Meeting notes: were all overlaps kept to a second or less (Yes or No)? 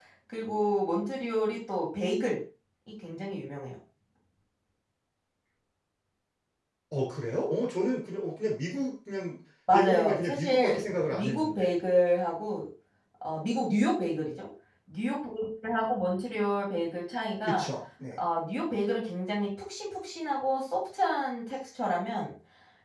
No